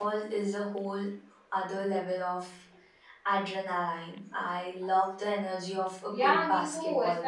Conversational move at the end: taking over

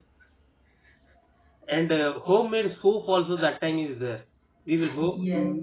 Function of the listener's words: listening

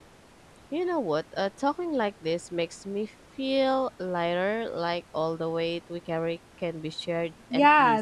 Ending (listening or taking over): taking over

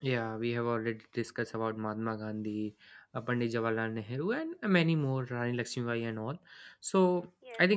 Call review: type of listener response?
listening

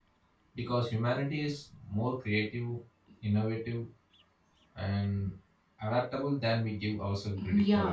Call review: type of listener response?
taking over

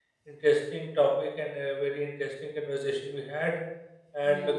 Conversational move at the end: listening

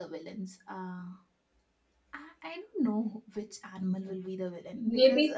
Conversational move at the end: taking over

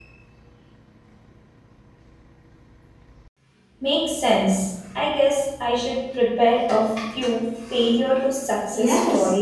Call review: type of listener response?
taking over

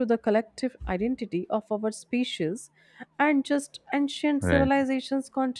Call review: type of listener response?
listening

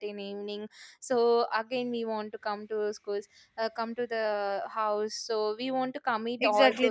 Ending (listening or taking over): taking over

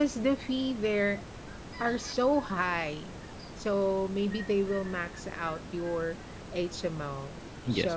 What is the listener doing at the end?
listening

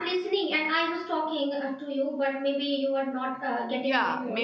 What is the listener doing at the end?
taking over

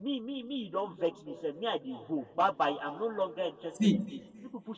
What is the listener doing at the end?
listening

